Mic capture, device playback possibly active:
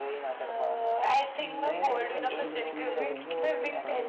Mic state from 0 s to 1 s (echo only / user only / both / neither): echo only